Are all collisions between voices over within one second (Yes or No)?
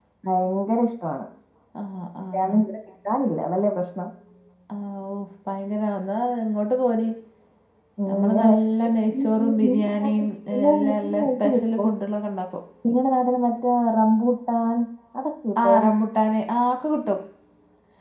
No